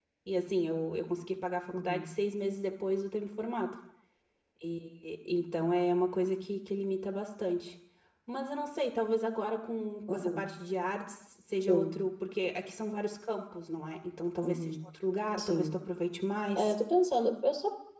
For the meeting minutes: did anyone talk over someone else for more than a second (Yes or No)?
No